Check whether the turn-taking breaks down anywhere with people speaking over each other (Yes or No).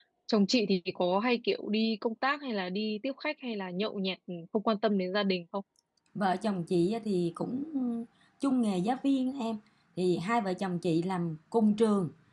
No